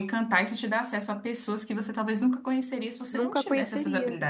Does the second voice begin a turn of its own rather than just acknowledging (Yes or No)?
Yes